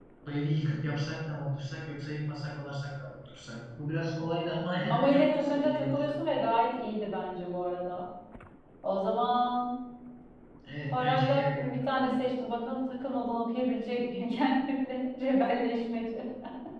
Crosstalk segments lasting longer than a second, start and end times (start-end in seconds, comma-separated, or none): 4.9-6.1, 10.9-12.2